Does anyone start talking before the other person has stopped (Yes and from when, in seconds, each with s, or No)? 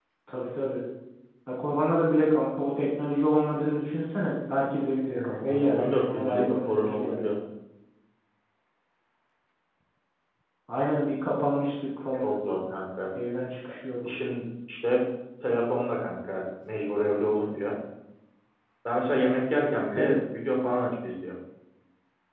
Yes, from 5.1 s